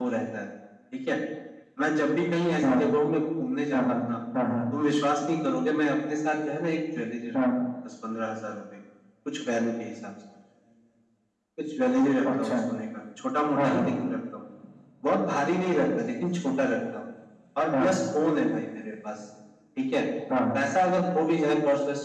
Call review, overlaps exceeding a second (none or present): none